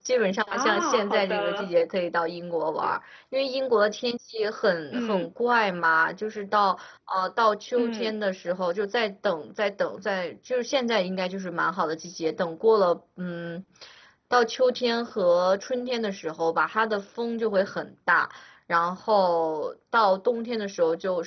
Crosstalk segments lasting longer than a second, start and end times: 0.5-1.7

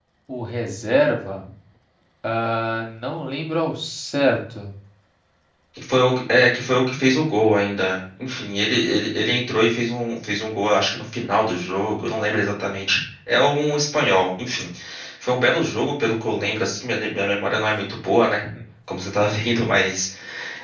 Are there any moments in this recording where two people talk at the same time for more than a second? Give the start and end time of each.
none

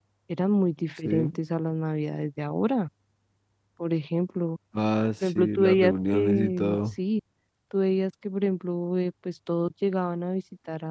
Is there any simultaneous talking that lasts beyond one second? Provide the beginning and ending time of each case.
5.2-6.8

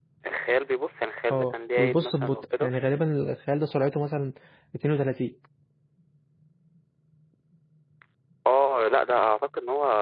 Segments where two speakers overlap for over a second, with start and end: 1.3-2.7

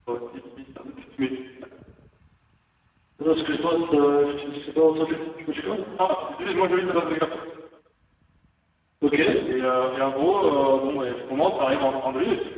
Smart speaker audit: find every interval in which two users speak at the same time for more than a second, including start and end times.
none

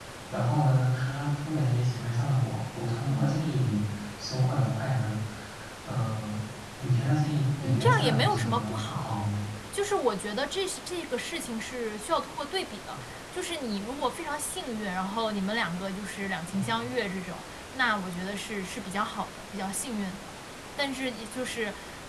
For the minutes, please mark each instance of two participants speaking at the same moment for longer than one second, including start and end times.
7.6-9.3

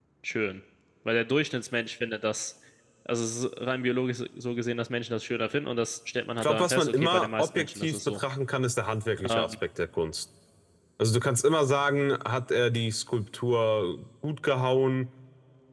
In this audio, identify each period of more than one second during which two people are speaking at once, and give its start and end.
6.4-8.2

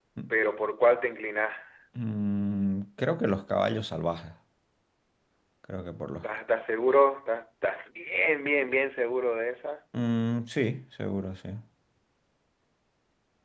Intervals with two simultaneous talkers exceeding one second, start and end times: none

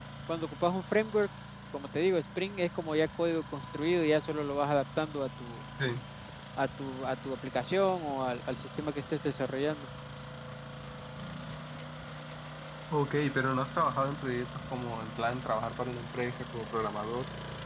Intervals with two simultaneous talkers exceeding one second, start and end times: none

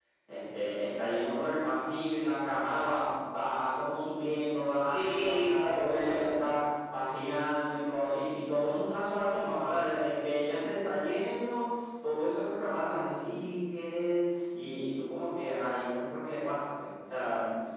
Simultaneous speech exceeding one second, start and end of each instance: 4.8-6.3

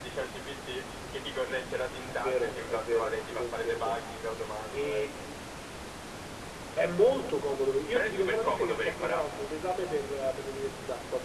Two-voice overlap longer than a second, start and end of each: 2.1-4.0, 7.9-9.3

